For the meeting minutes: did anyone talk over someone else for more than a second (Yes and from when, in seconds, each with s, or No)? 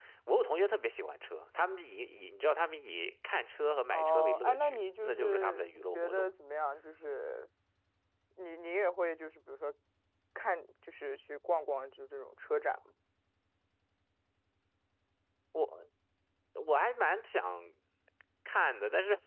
Yes, from 3.9 s